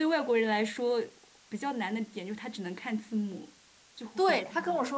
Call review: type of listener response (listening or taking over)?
taking over